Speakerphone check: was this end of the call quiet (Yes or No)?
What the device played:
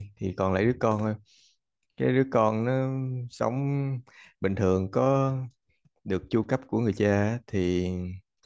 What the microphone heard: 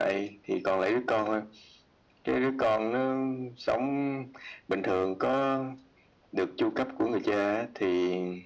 Yes